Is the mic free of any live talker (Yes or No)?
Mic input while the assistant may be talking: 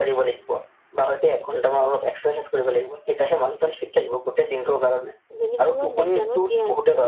No